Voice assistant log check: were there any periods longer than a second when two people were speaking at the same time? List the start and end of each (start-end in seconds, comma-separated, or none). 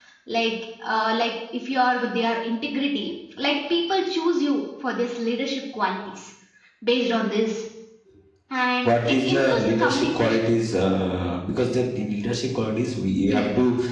8.8-10.4